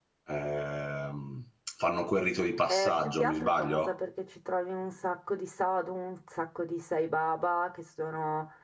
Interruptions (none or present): present